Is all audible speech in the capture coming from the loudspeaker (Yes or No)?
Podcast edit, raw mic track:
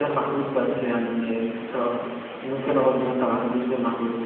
Yes